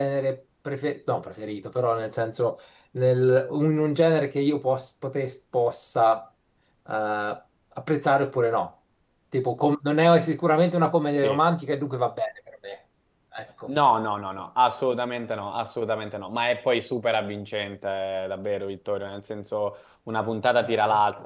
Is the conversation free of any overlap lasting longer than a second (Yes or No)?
Yes